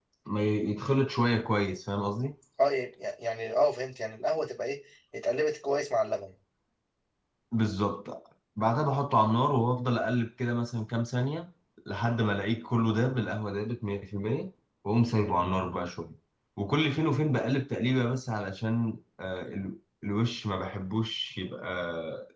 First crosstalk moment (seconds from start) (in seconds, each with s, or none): none